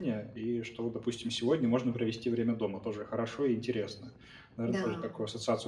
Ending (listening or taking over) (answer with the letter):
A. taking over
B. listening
B